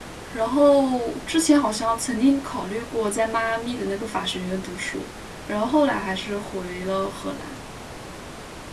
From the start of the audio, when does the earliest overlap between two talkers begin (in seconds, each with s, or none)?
none